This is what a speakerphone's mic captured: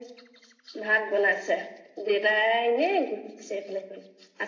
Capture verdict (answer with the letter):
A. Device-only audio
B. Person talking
A